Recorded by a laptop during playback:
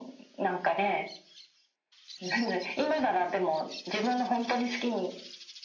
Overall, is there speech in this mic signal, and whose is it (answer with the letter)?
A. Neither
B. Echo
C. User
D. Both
B